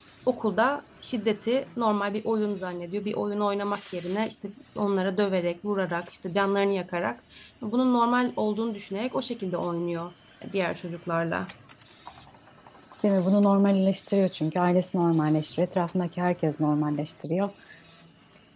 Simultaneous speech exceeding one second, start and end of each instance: none

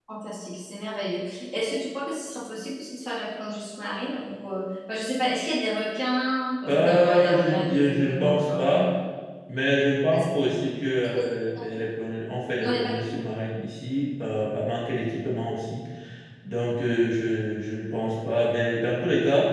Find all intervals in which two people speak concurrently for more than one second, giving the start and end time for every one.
6.7-8.9

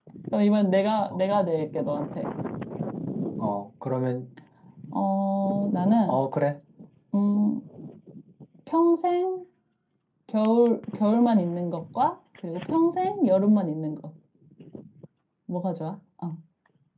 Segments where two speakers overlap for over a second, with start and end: none

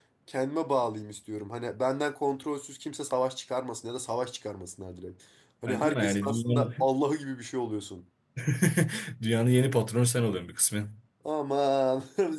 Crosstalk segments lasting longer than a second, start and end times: 5.7-6.8

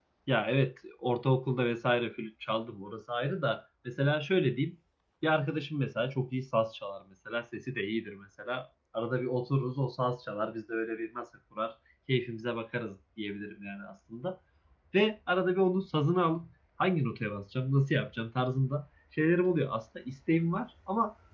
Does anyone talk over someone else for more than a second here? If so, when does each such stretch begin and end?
none

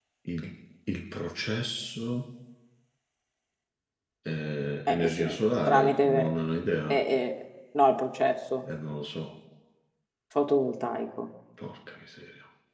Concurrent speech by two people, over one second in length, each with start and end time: 4.9-6.3

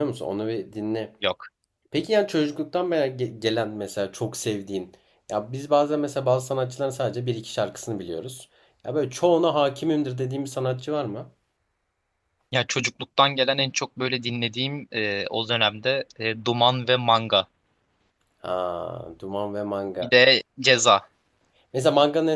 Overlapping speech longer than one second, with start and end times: none

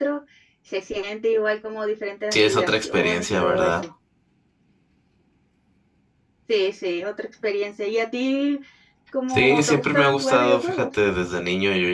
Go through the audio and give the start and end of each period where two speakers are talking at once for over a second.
2.3-3.7, 9.3-10.8

